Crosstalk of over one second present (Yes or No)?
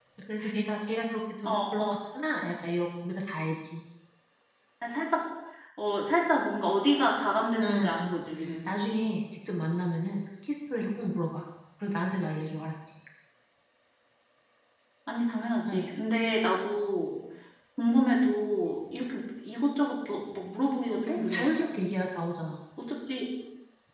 No